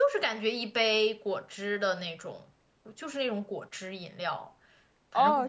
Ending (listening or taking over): taking over